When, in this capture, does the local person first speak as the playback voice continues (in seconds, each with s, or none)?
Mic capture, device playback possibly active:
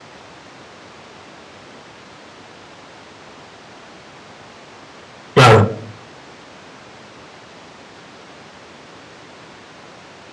5.3 s